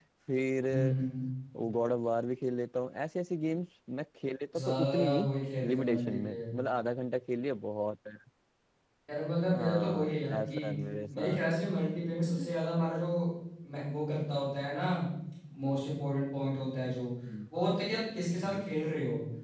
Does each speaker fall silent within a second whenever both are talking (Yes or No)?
No